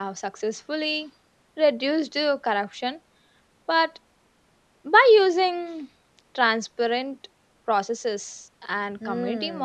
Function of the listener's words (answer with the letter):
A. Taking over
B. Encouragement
A